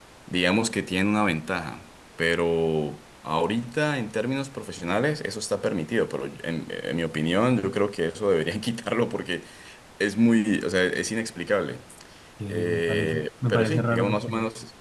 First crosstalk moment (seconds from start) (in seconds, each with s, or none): 12.5 s